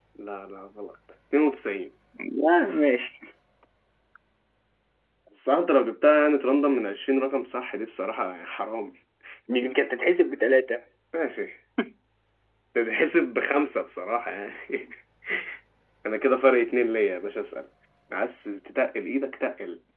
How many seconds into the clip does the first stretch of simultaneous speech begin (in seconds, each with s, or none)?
none